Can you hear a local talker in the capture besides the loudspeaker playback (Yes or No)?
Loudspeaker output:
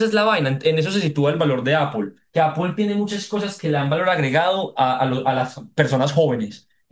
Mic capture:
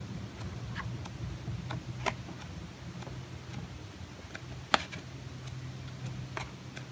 No